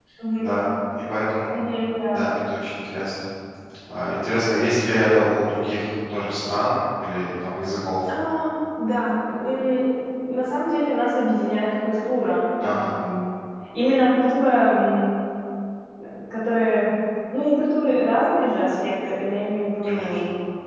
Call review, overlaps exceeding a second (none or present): none